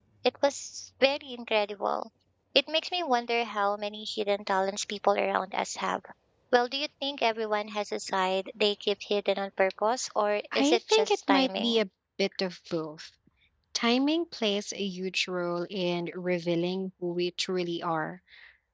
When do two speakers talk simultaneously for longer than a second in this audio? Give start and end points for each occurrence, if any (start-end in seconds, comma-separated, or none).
10.6-11.8